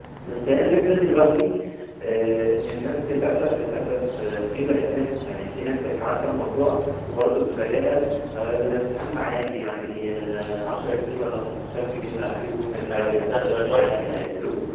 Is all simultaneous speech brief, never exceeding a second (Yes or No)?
No